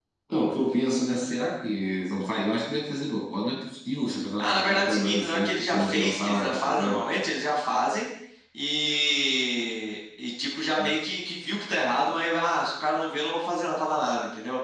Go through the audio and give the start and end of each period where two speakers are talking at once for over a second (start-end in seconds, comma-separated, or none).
4.4-7.0